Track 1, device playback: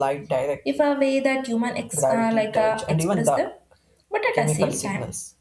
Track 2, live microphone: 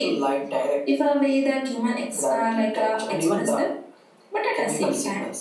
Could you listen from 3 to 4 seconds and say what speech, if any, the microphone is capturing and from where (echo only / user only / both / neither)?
echo only